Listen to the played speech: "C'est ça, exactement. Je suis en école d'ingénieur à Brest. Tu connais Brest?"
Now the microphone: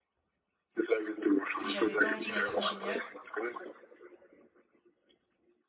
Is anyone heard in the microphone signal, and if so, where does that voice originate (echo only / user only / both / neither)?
both